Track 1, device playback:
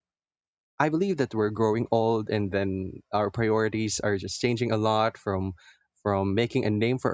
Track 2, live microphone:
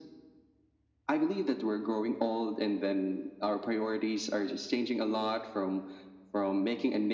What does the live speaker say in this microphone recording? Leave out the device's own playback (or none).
none